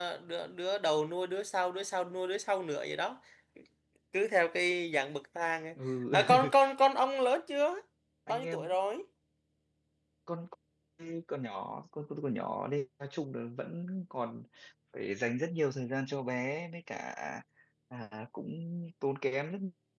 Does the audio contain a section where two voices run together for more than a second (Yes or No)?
No